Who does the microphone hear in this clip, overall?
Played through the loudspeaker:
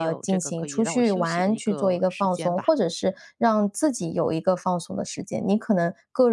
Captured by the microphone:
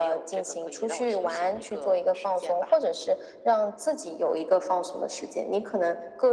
echo only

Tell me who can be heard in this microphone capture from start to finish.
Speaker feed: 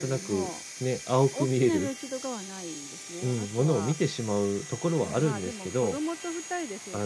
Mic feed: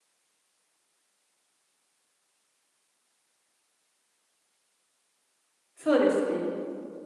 user only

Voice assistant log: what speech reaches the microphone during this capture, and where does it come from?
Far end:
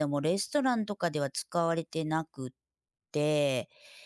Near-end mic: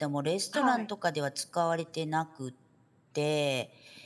both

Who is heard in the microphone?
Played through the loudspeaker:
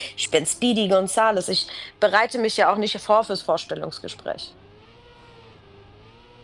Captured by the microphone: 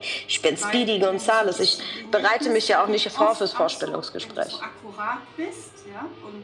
both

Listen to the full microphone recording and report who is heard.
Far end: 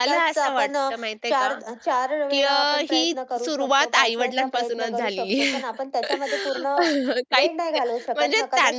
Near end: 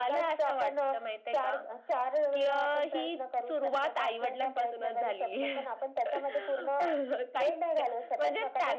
echo only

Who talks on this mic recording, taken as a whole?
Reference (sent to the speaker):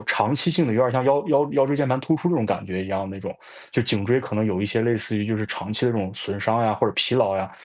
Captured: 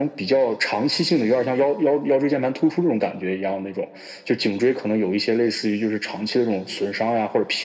echo only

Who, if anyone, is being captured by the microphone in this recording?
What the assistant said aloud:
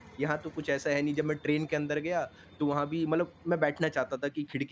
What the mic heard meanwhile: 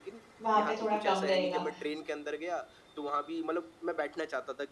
both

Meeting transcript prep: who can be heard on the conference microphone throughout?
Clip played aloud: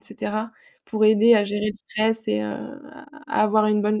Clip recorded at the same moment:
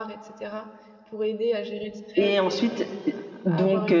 both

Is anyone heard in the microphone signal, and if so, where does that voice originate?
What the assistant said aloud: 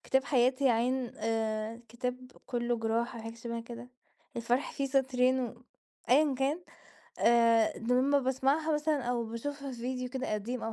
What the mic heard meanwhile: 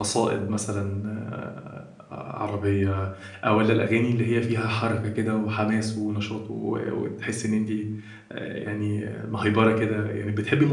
user only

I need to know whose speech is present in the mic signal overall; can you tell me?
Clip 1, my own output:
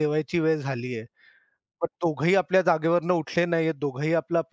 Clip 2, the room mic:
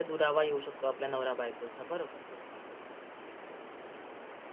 user only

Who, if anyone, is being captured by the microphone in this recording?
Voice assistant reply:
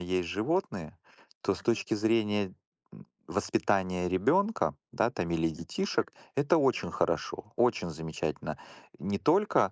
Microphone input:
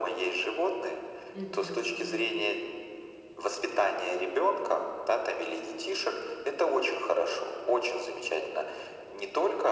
both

